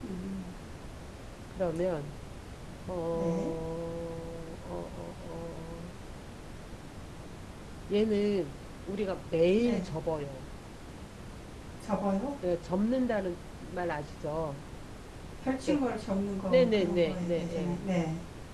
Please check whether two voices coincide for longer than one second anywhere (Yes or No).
Yes